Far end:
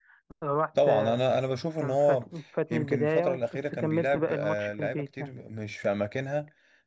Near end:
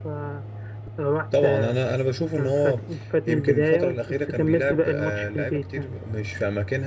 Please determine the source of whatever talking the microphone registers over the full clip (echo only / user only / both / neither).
echo only